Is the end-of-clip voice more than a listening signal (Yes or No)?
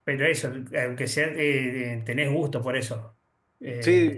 Yes